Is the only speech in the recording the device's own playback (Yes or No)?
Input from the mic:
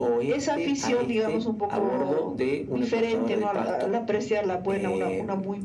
Yes